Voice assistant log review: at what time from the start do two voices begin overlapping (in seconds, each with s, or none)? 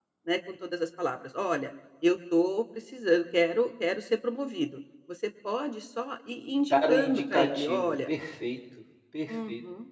6.6 s